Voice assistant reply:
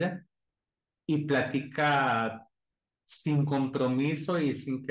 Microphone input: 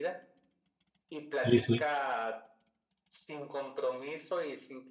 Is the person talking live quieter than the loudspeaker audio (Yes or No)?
No